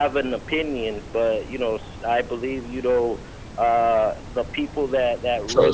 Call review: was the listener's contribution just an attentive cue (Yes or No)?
No